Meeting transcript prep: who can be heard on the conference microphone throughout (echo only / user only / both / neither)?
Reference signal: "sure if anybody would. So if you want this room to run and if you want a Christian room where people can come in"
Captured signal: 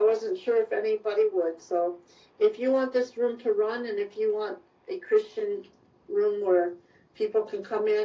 echo only